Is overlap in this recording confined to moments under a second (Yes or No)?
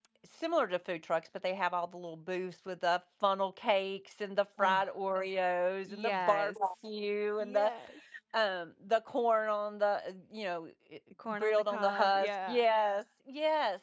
No